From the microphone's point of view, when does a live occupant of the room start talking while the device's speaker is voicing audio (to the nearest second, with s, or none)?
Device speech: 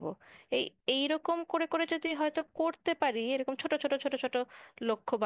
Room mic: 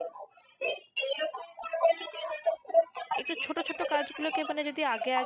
3 s